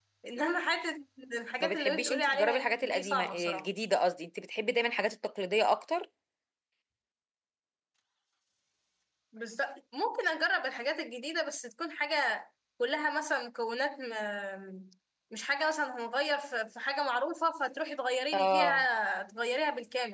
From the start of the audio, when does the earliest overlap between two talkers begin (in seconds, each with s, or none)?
1.6 s